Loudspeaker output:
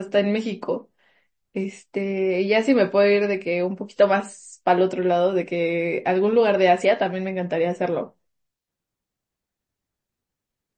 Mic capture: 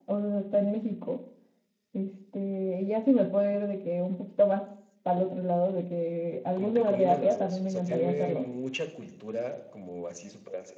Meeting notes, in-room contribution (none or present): present